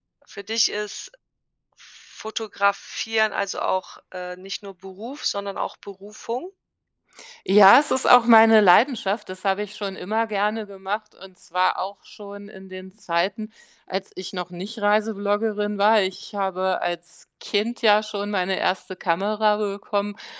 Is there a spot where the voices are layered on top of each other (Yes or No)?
No